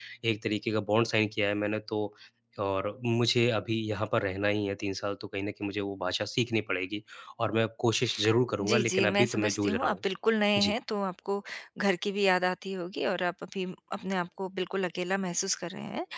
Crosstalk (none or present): present